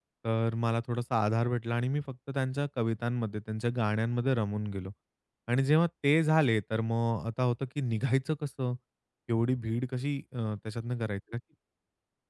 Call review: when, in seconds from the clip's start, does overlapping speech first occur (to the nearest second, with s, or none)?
none